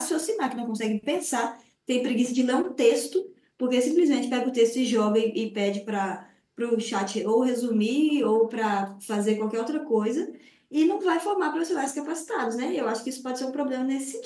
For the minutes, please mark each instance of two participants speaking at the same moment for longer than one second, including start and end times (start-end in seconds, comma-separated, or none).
none